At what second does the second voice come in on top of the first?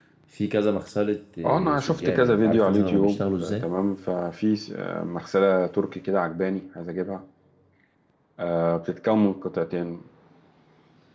1.4 s

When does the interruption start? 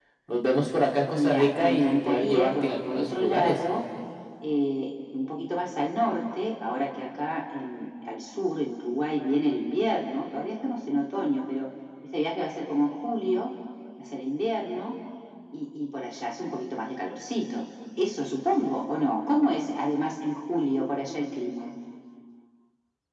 1.1 s

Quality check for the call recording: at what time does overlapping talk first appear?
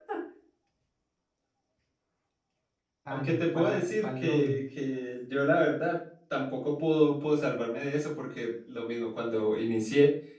3.1 s

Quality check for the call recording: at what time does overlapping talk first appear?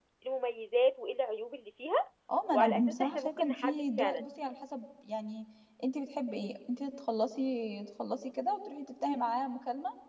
2.5 s

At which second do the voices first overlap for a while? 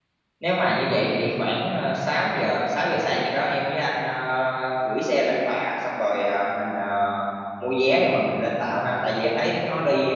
none

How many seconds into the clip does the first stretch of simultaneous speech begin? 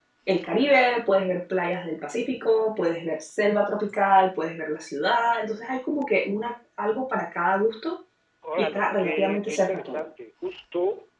8.6 s

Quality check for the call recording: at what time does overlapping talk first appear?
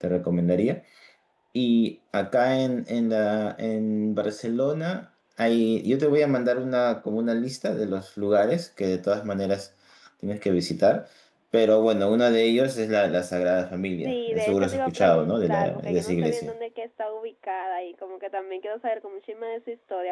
14.0 s

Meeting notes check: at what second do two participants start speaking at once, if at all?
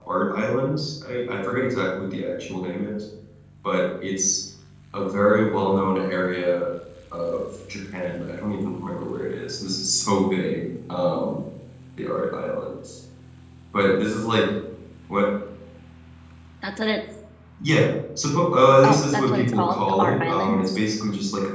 18.8 s

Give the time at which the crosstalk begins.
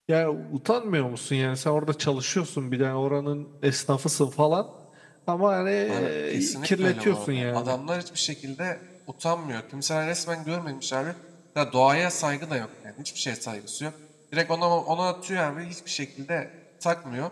5.9 s

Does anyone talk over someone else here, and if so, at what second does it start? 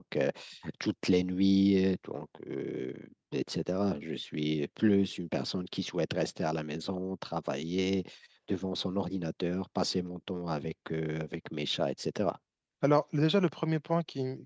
none

